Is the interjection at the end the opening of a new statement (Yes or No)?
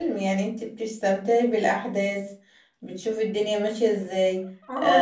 Yes